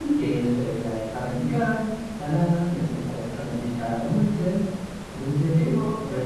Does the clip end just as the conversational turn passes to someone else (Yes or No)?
No